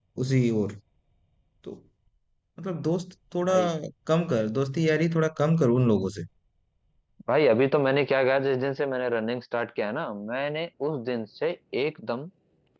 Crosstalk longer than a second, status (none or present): none